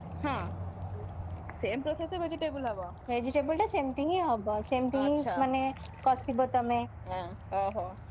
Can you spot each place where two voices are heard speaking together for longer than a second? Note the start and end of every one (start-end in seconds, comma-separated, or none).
none